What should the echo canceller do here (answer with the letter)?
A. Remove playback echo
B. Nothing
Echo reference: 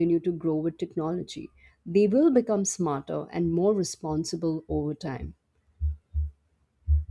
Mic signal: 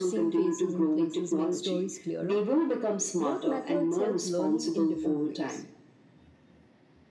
A